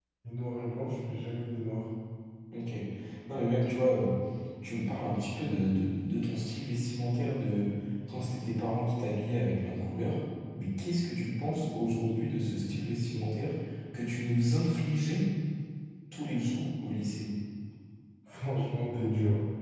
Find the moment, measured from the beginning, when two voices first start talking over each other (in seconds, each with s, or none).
none